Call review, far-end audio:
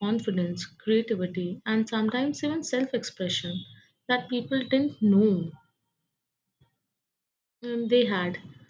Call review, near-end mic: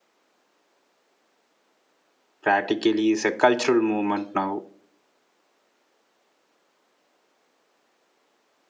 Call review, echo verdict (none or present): none